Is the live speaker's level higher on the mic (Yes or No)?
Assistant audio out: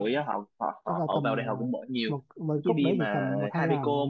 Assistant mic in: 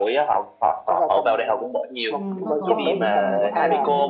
No